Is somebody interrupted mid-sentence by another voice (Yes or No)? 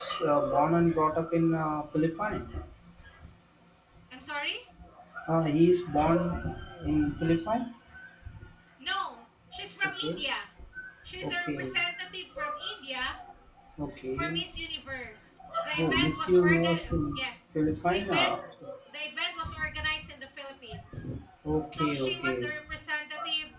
Yes